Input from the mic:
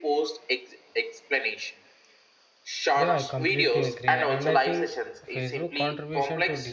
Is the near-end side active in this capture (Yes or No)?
Yes